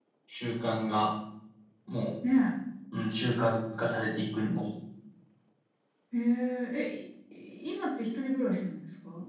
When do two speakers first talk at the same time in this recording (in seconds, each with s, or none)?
none